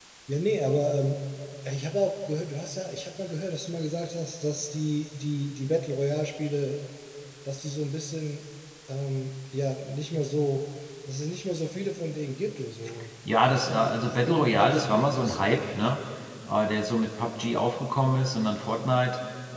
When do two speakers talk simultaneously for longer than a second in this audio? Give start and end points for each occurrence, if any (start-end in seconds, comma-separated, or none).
13.4-15.9